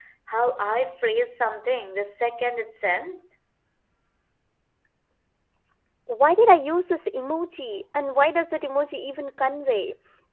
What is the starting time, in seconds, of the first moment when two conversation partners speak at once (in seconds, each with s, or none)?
none